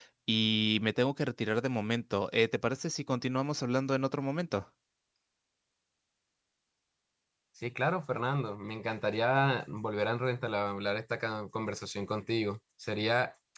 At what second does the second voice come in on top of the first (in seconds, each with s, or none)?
none